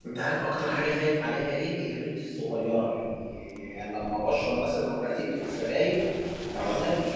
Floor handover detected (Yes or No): No